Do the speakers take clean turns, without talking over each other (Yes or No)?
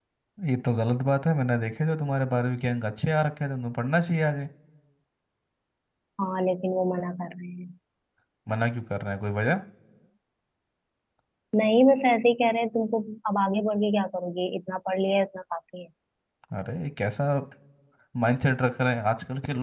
Yes